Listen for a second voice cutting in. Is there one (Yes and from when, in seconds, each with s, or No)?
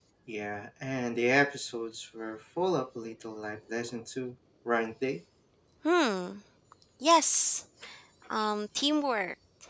No